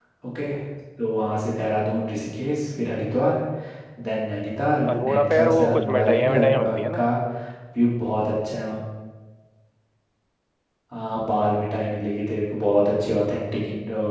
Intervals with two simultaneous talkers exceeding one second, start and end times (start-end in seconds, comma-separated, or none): 4.9-7.0